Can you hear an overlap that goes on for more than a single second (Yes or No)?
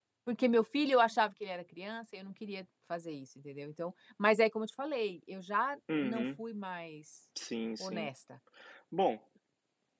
No